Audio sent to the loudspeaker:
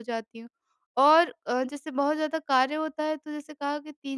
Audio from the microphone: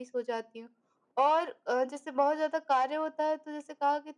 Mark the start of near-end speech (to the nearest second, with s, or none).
none